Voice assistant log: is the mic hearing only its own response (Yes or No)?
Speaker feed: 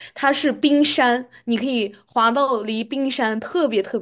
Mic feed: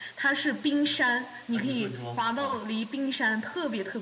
No